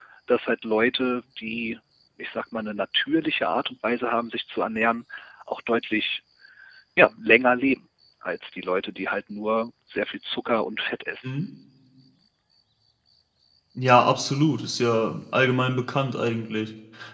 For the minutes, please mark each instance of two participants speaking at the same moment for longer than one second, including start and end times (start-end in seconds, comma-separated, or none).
none